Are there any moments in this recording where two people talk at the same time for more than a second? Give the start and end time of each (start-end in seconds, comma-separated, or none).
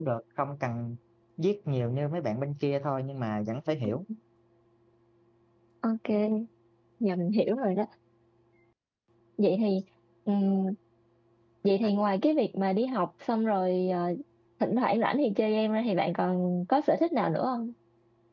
none